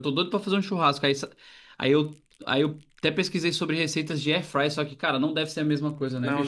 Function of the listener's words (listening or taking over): taking over